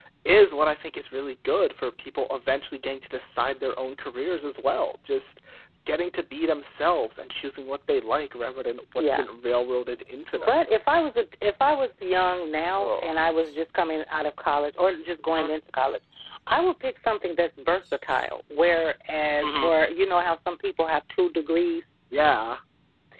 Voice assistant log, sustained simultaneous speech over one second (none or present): none